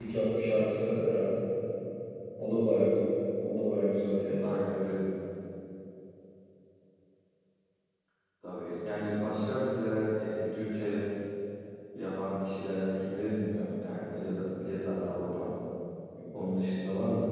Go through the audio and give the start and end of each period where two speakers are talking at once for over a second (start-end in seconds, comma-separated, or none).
none